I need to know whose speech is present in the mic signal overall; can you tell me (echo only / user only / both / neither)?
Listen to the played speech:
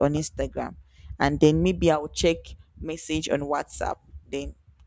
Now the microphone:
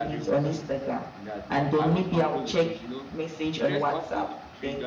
both